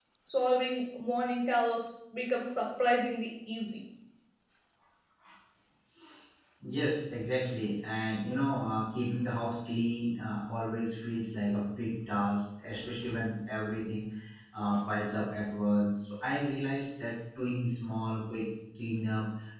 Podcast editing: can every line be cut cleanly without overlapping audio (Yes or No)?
Yes